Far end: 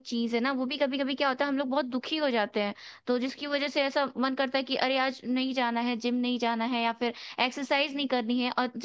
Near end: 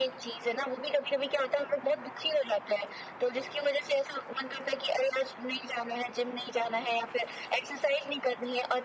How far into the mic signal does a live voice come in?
none

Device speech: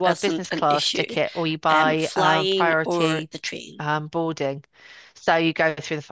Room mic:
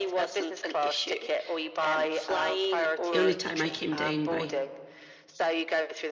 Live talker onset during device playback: 3.1 s

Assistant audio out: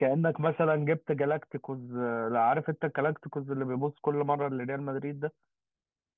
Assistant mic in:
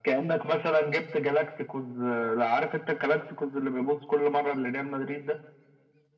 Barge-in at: none

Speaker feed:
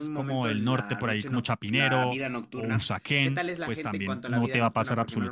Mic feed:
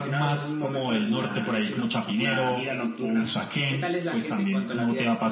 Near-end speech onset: none

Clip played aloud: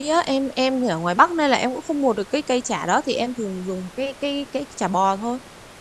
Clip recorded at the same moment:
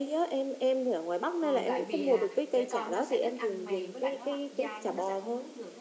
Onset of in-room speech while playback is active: 1.4 s

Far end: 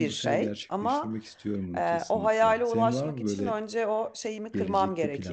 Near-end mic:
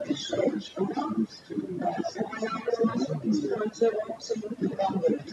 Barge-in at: none

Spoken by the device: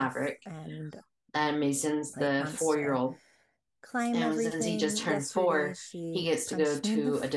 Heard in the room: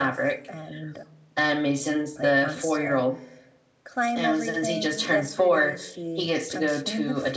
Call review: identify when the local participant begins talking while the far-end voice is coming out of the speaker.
none

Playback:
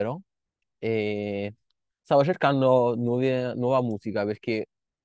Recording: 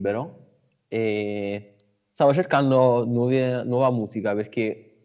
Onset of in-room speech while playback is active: none

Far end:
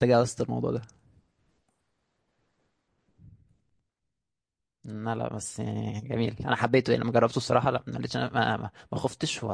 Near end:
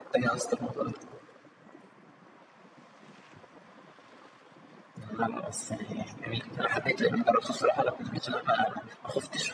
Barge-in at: none

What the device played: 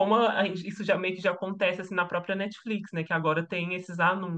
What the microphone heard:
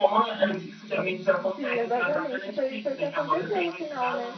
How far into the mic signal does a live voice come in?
1.5 s

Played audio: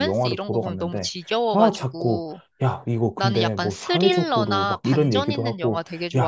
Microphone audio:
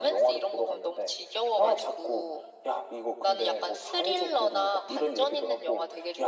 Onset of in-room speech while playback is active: none

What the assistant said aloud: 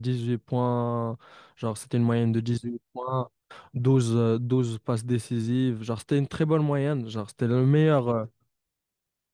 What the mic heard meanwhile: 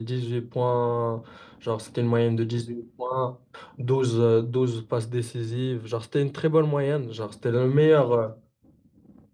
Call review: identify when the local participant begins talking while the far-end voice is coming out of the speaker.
none

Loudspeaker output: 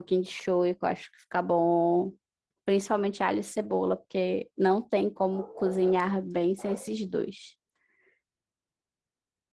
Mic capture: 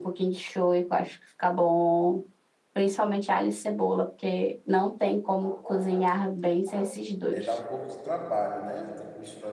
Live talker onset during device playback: 7.3 s

